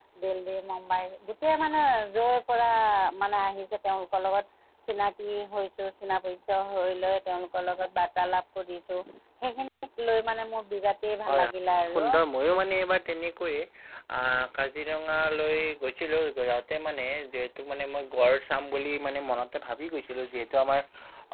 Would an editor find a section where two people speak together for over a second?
No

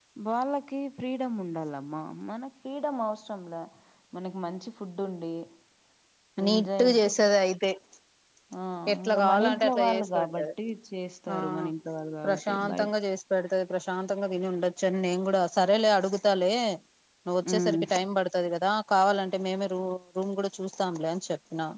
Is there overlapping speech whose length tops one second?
Yes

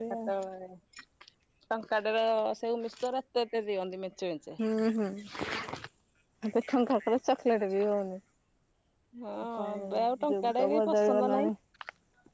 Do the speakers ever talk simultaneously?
Yes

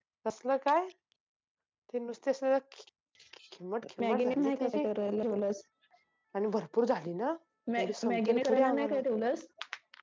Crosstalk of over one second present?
Yes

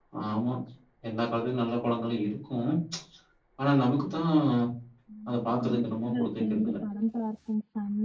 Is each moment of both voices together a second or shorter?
No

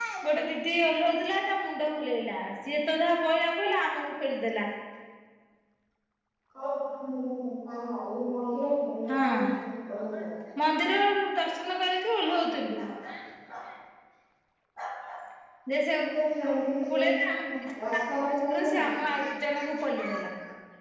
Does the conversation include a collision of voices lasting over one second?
No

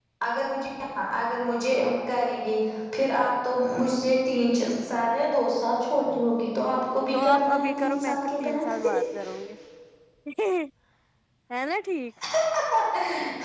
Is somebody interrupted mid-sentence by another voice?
Yes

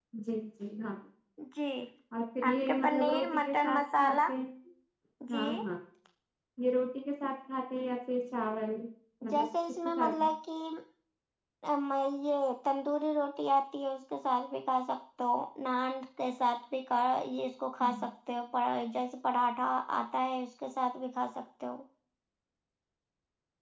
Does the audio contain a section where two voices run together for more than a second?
Yes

